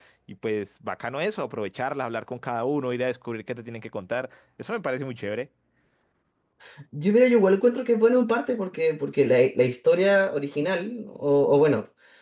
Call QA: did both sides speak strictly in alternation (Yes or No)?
Yes